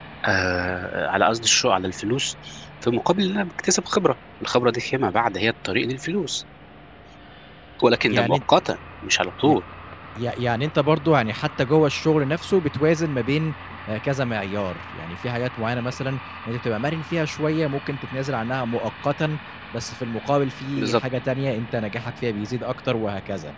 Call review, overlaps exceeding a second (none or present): none